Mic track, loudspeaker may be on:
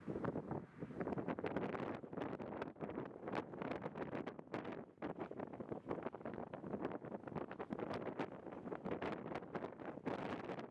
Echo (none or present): none